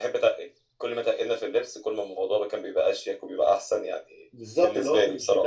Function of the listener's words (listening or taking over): taking over